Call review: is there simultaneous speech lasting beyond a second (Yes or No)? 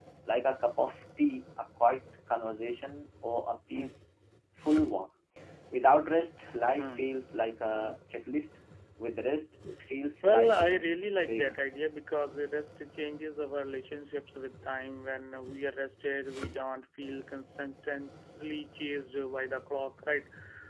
Yes